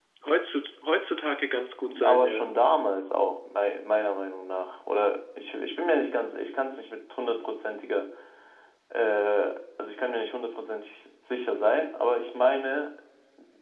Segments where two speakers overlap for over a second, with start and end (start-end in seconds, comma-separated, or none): none